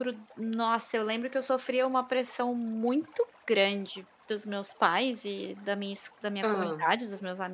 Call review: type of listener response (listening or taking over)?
listening